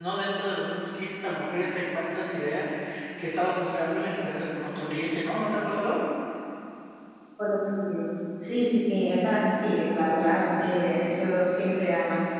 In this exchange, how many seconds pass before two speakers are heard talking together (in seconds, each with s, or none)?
none